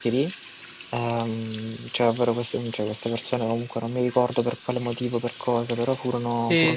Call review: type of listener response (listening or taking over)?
taking over